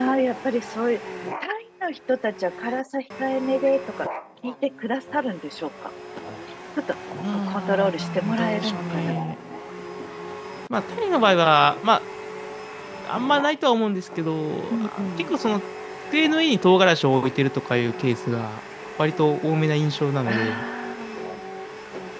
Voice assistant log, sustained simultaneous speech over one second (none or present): present